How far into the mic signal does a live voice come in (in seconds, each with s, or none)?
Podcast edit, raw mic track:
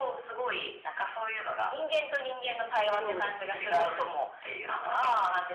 3.0 s